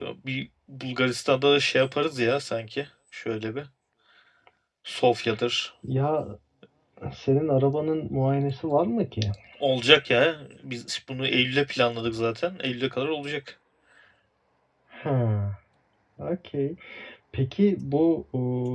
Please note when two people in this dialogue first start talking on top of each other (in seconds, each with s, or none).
none